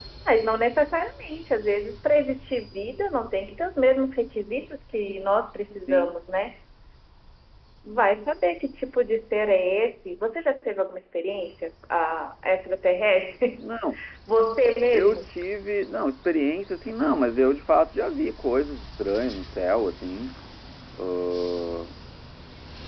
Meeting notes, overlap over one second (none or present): none